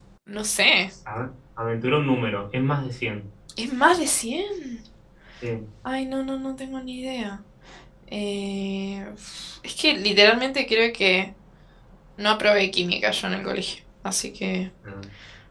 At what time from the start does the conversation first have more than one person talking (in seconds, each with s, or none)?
none